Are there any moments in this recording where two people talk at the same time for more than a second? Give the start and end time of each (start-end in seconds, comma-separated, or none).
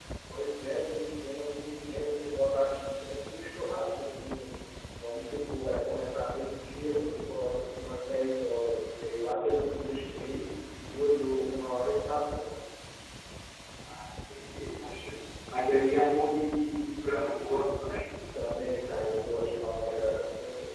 none